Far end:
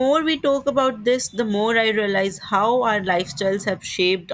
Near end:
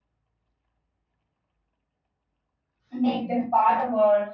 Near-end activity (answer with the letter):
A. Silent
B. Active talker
B